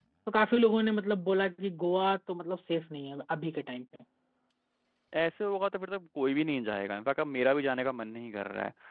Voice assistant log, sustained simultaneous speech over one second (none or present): none